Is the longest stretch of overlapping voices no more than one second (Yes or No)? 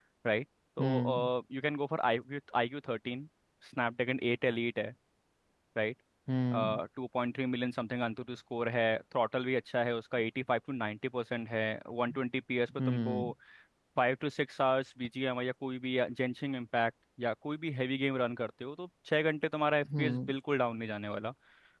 Yes